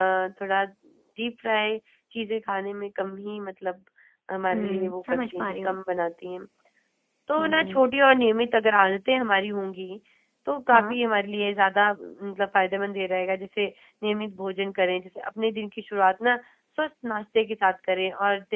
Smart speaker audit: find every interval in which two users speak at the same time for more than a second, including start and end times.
4.5-5.8

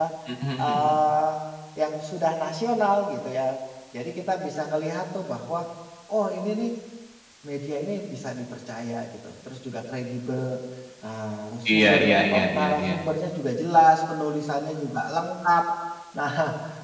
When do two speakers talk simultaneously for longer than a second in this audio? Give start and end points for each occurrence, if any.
11.7-12.9

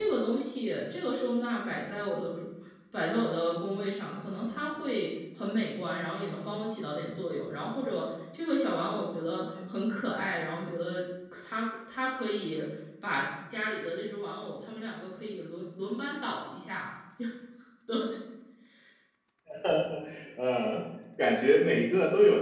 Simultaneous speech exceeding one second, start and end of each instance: none

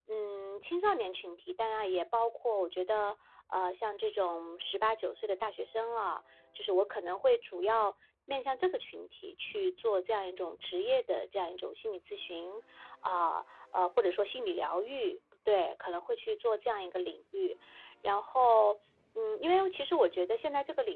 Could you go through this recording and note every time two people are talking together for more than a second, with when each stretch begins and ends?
none

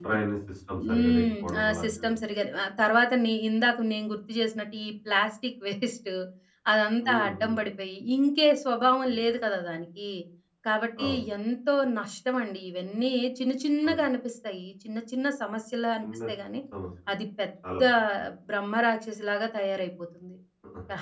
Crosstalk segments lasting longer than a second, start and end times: 0.9-2.1

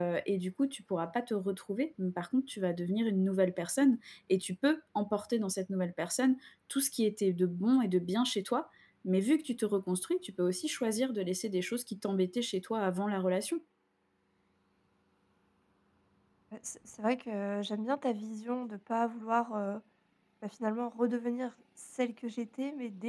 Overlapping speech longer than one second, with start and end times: none

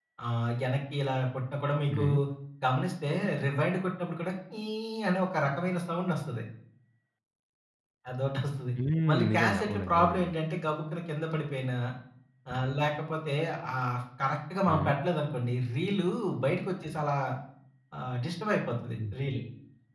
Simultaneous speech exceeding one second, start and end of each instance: 9.1-10.3

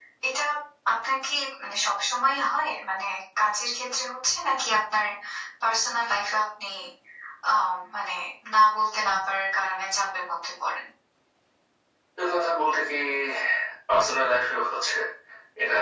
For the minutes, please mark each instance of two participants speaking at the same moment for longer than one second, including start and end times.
none

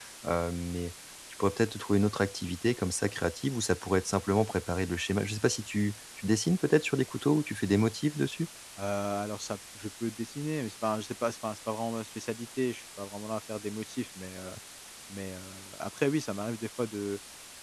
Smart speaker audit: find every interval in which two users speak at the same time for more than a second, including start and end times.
none

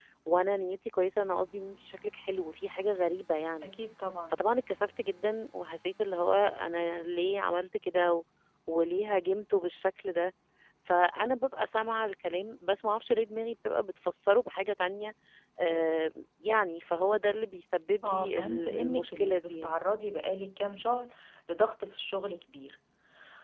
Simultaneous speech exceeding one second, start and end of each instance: 18.0-19.8

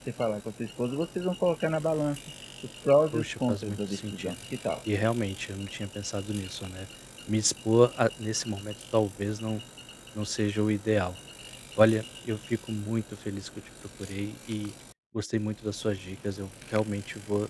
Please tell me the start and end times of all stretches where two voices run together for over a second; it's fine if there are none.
3.1-4.4

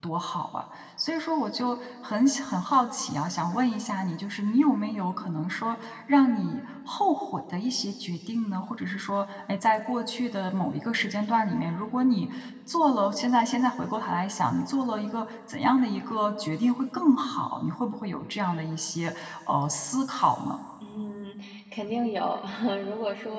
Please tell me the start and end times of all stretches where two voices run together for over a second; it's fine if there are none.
none

